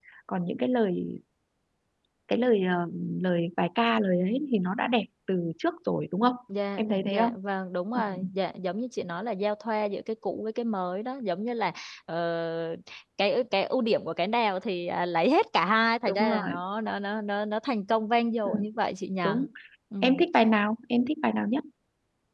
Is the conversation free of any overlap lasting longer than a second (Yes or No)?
Yes